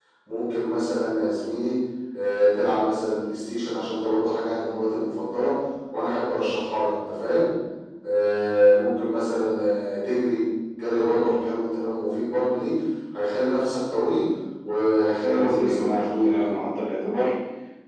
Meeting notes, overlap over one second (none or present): present